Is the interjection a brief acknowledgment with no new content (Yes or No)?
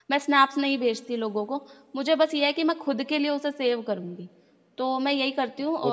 Yes